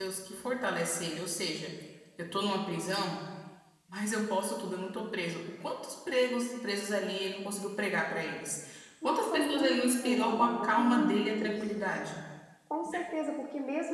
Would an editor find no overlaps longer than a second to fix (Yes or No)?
No